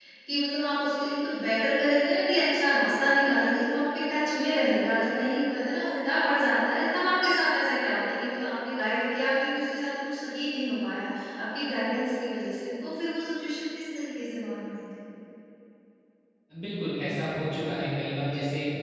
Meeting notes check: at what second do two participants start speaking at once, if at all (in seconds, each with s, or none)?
none